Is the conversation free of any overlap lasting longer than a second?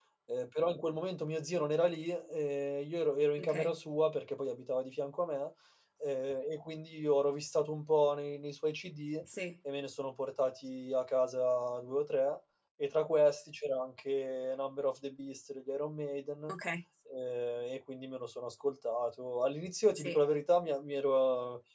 Yes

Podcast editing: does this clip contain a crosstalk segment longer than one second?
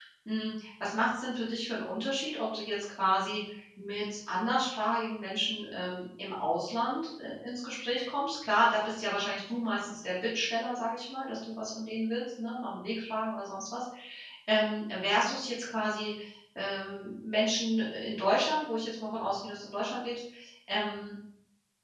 No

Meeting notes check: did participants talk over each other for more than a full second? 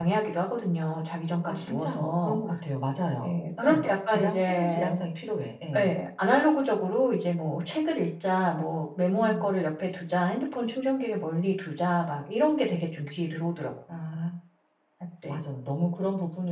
Yes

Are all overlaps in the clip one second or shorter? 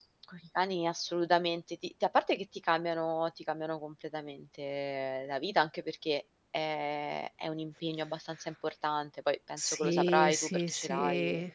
No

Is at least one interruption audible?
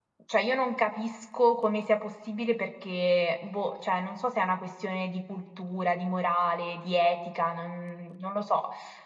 No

